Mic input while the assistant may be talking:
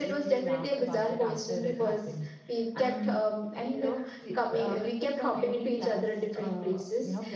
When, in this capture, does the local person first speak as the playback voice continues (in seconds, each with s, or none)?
none